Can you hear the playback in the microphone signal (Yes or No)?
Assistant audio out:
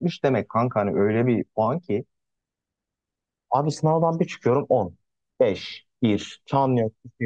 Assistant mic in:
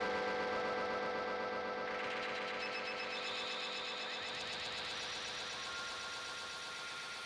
No